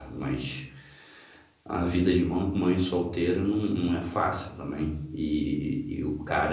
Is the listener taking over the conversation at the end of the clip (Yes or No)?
No